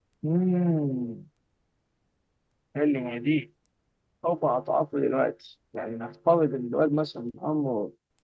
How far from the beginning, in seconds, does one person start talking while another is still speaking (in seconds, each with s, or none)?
none